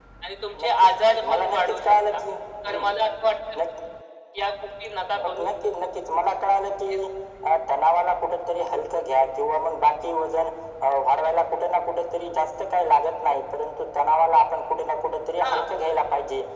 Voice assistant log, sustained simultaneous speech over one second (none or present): present